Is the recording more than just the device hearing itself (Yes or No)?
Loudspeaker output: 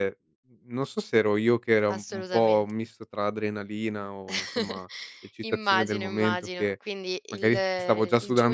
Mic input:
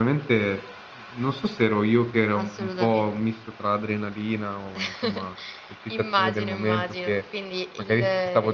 No